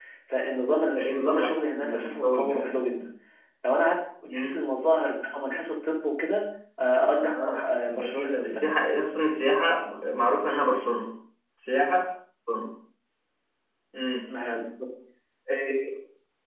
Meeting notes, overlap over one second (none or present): present